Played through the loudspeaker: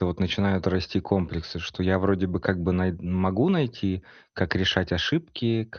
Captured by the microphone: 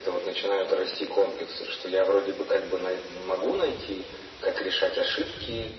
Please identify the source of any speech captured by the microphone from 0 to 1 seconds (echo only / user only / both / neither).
echo only